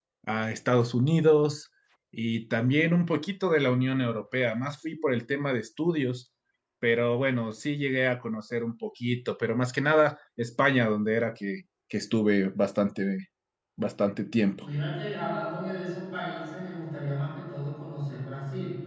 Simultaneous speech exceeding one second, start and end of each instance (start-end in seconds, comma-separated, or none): none